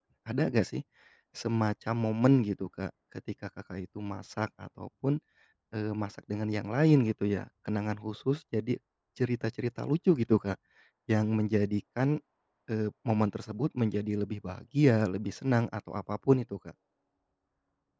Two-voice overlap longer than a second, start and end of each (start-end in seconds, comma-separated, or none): none